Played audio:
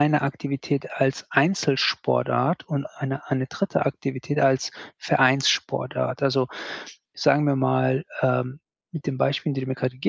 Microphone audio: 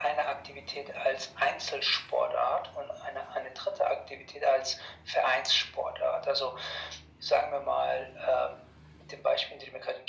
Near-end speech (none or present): none